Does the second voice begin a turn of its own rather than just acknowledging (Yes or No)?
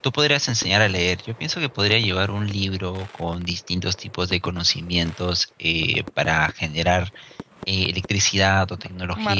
No